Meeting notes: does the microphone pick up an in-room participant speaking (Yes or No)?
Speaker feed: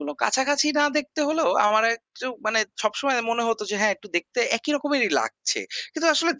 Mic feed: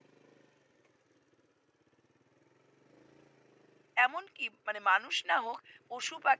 Yes